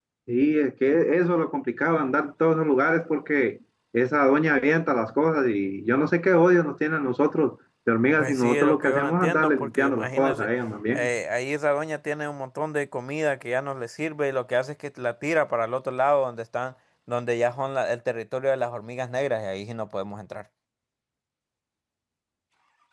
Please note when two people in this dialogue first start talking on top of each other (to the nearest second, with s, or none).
8 s